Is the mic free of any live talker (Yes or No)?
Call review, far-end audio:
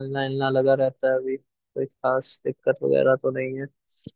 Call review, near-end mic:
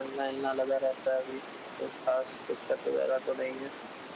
Yes